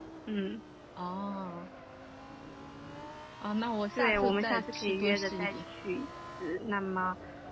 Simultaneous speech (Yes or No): Yes